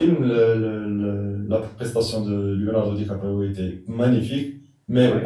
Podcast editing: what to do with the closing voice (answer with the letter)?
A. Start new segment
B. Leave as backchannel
B